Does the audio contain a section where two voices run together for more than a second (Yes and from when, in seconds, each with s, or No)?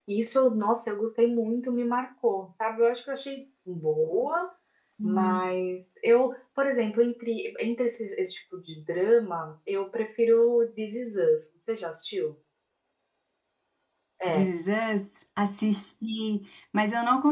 No